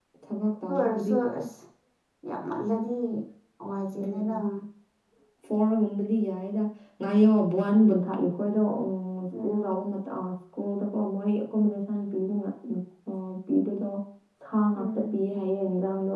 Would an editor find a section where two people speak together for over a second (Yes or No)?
No